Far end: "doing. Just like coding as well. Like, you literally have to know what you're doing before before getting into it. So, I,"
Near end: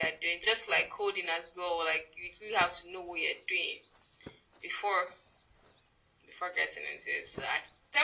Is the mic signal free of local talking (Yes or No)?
Yes